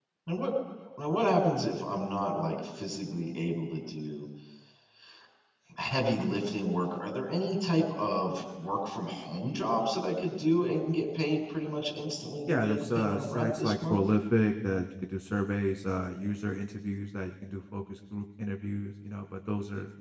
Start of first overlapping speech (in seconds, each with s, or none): 12.5 s